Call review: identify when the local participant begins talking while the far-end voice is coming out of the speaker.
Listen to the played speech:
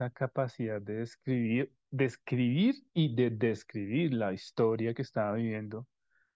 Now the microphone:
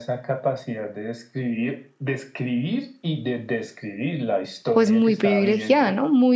4.7 s

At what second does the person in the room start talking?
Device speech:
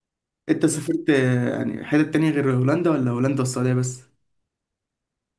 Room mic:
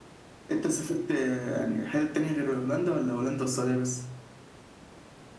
none

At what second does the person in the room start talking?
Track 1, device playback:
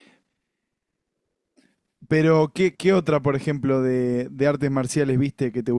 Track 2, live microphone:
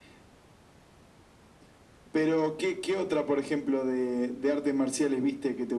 none

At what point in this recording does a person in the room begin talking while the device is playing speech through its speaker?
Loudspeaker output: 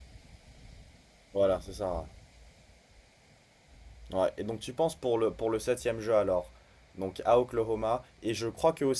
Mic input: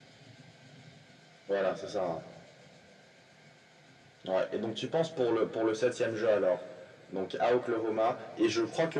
none

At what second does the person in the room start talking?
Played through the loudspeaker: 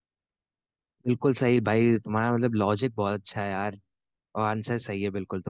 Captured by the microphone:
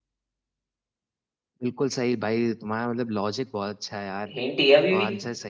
4.3 s

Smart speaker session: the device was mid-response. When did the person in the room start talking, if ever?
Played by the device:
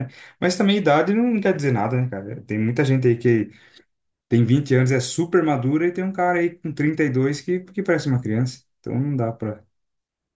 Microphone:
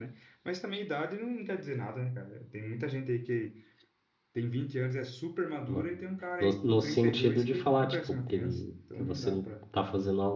5.7 s

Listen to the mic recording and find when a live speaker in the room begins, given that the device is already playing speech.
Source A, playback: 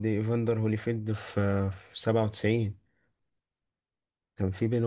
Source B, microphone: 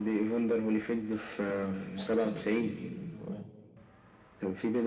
1.5 s

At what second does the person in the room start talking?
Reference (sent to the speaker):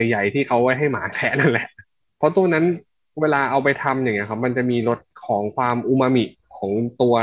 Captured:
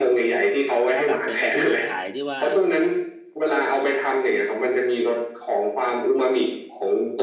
0.9 s

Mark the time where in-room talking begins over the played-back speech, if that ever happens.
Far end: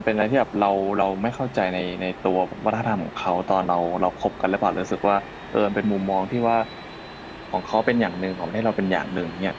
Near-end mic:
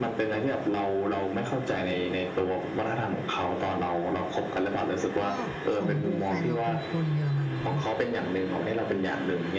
5.2 s

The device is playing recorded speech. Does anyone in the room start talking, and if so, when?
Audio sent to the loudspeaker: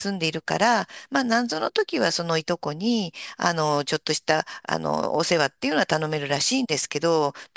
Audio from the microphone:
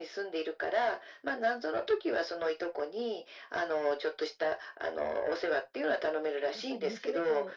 6.5 s

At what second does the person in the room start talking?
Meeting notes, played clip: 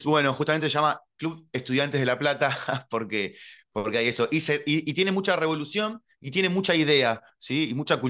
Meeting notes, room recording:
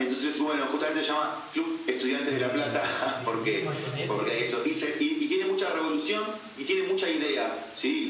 2.2 s

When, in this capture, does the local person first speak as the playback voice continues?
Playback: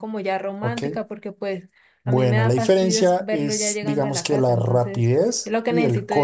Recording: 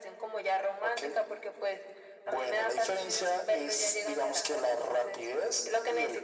none

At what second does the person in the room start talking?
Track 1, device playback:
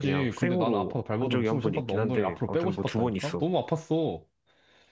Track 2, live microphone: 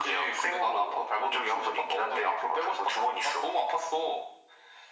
none

